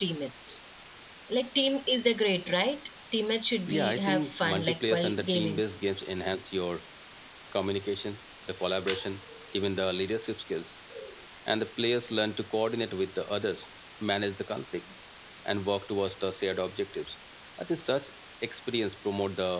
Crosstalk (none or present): present